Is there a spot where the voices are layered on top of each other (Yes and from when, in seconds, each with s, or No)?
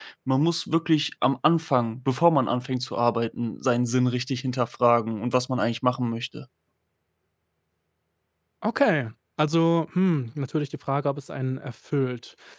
No